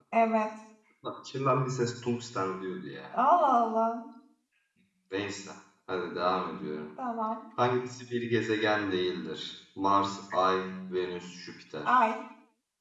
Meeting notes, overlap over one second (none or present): none